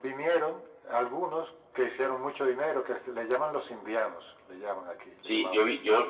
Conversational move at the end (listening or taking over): taking over